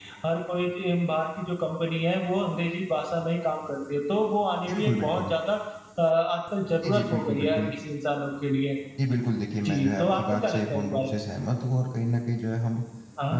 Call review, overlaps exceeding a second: present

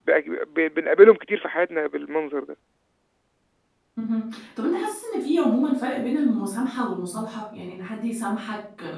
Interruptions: none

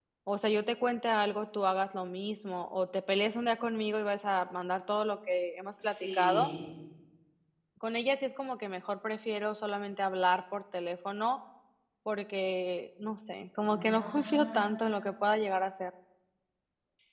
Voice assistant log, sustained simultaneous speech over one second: present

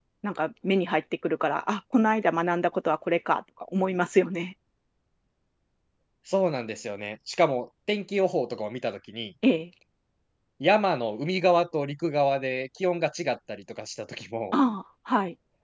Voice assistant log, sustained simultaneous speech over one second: none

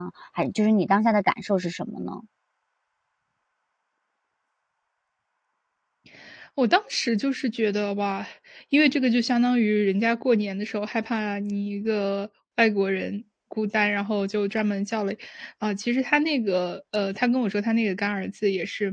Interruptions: none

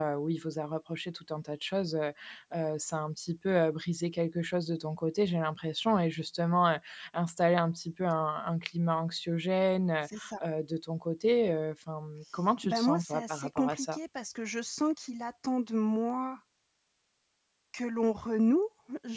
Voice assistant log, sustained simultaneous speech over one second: present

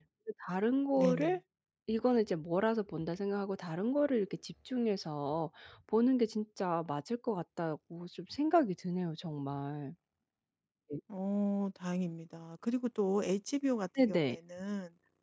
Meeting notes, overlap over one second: none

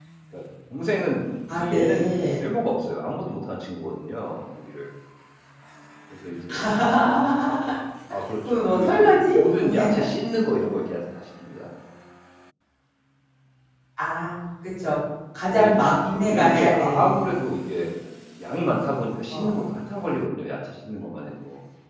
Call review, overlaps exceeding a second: present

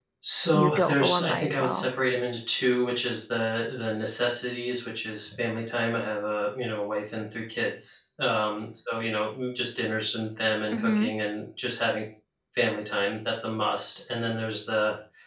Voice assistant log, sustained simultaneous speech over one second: present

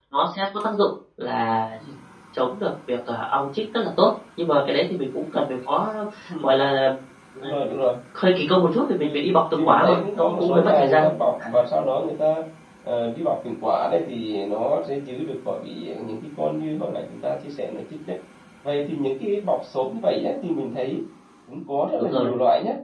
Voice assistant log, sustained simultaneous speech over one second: present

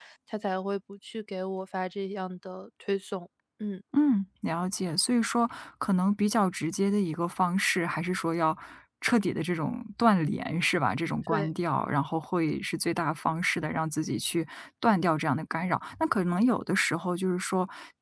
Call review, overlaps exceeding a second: none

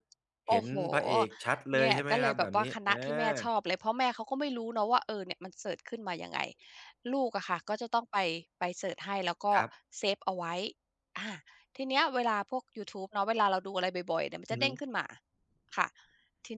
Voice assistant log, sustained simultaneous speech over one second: present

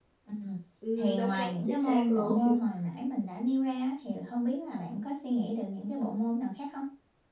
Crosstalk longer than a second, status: present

